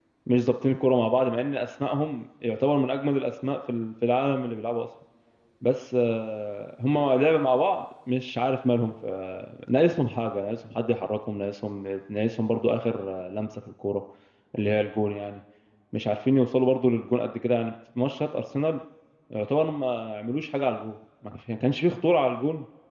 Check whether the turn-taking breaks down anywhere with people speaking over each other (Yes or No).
No